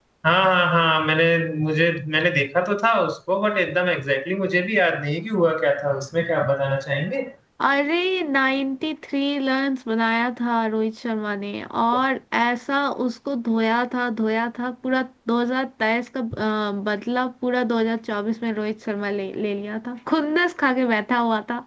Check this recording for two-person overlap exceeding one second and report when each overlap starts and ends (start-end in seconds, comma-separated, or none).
none